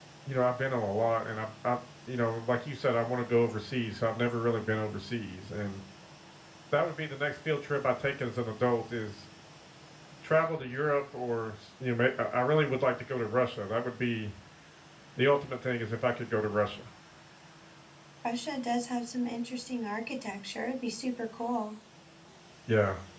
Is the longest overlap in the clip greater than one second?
No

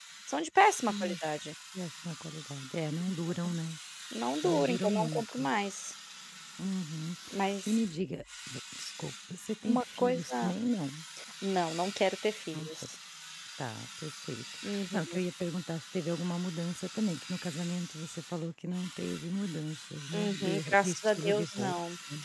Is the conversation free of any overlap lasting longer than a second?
No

